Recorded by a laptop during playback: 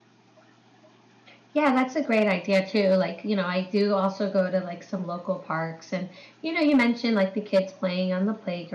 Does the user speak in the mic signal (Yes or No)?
Yes